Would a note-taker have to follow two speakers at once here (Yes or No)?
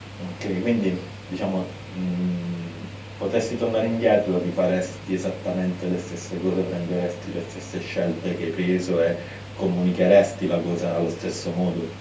No